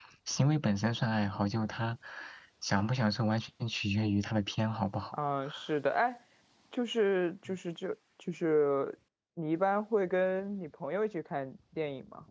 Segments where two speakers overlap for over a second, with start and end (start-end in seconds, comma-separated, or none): none